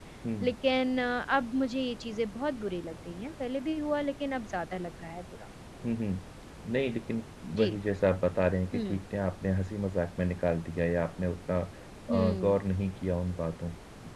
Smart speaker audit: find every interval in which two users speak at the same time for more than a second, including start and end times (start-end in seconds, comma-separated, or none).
none